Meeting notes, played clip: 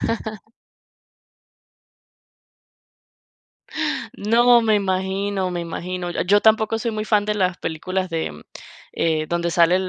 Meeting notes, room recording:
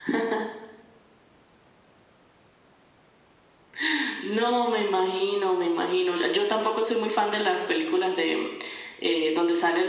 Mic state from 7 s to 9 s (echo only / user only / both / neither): echo only